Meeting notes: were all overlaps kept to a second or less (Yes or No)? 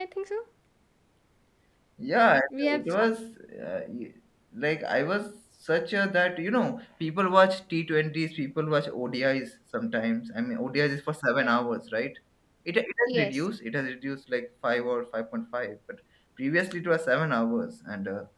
Yes